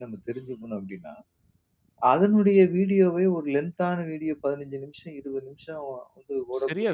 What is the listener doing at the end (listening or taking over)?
taking over